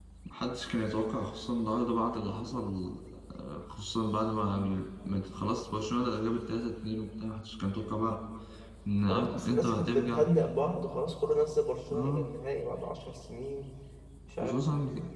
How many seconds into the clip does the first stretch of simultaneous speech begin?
9 s

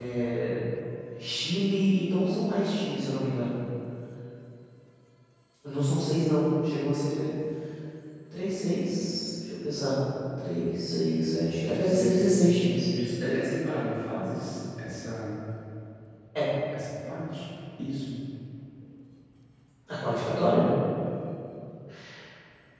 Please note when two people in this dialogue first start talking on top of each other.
12 s

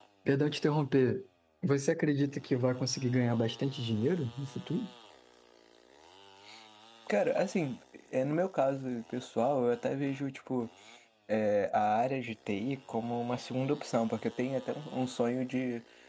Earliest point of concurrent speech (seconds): none

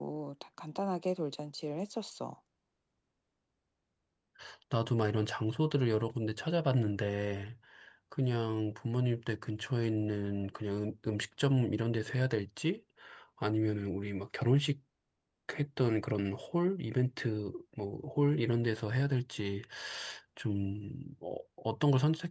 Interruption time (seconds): none

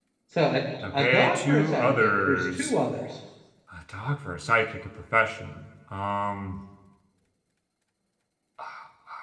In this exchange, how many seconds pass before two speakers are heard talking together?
1 s

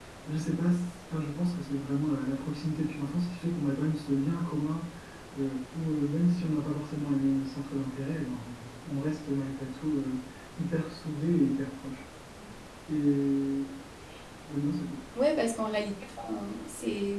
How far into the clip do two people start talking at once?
none

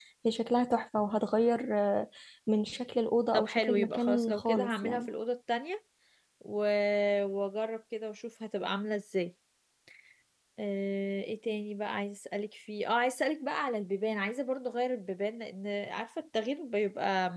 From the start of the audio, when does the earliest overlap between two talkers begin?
3 s

